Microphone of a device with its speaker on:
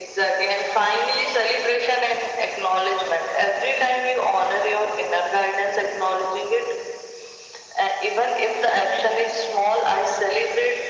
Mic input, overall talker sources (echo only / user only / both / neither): echo only